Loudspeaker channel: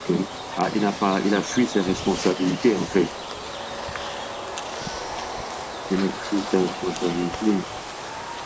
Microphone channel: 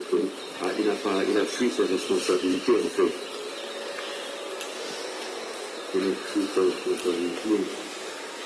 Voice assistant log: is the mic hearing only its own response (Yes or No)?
Yes